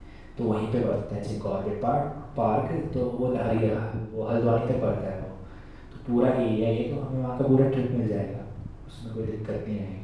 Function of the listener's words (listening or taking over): taking over